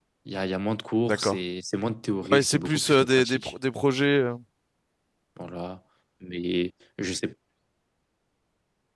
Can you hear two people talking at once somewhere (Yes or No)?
Yes